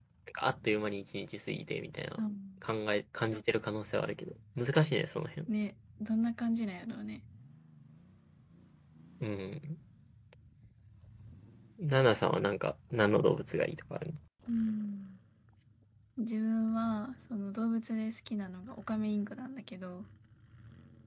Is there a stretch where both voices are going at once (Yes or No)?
No